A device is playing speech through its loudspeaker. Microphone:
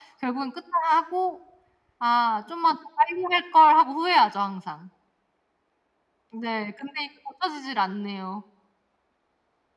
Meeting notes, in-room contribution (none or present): none